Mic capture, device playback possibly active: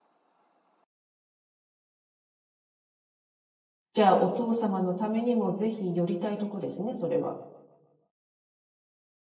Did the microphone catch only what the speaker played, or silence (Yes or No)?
No